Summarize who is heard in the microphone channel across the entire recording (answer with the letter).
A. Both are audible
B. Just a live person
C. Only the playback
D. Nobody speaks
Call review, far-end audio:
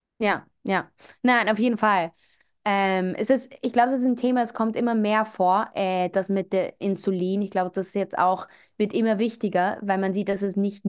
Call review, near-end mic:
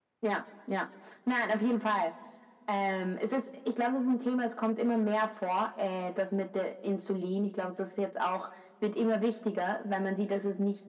C